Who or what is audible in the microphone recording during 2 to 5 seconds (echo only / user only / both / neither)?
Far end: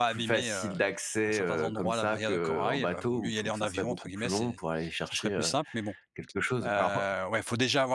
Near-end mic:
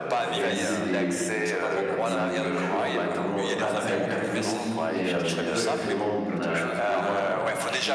both